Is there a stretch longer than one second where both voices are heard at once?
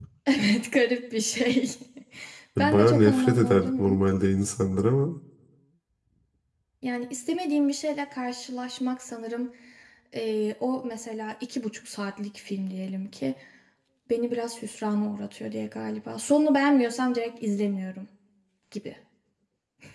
Yes, from 2.6 s

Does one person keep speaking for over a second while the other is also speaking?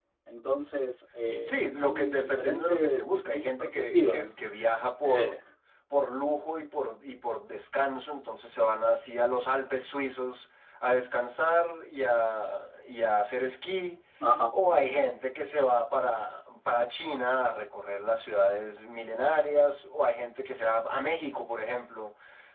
Yes, from 1.4 s

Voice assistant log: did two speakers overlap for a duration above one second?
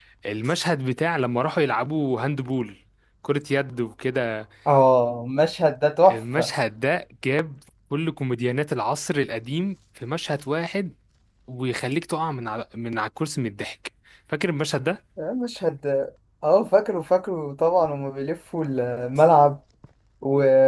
No

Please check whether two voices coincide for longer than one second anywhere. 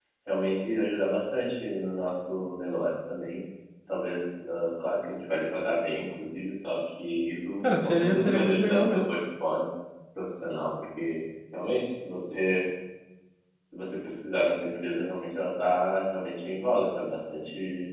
Yes, from 7.6 s

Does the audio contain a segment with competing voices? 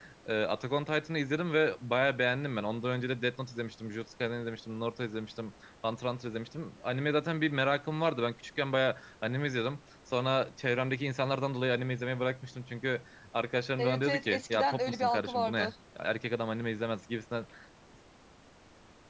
Yes, from 13.8 s

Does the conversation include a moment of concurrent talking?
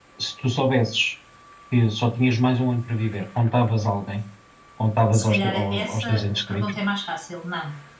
Yes, from 5.1 s

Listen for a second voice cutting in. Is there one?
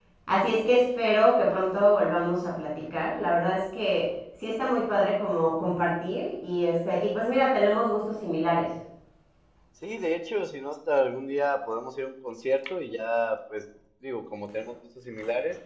No

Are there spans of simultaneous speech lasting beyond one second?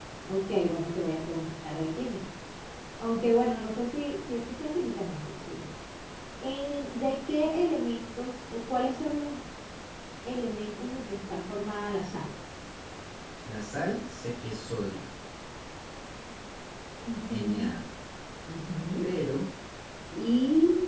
No

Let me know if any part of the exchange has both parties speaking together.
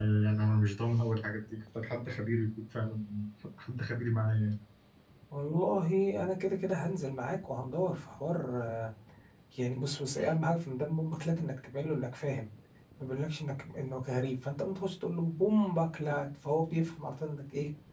No

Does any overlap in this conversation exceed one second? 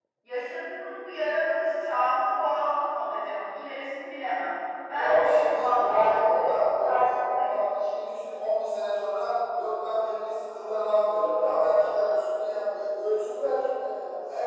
Yes, from 4.9 s

